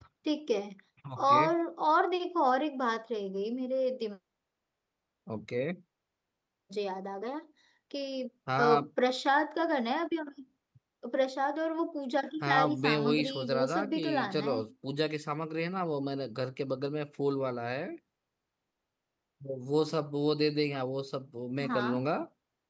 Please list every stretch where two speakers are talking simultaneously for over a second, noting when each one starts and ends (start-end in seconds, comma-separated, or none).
12.4-14.6